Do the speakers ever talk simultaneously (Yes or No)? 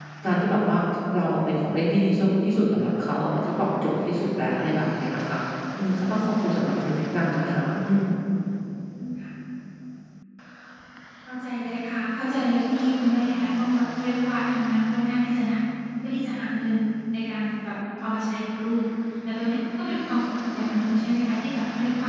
No